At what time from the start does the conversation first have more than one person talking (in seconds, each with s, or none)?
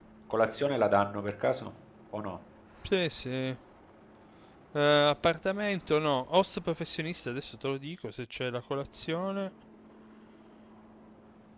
none